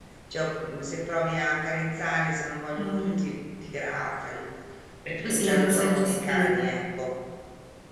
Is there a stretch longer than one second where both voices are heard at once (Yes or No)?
Yes